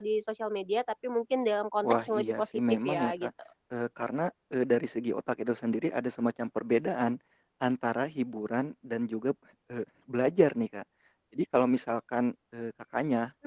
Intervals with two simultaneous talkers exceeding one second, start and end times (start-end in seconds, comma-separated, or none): 1.8-3.3